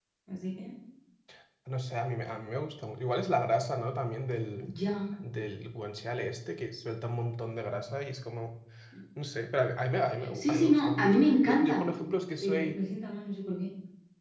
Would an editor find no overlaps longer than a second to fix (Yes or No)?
No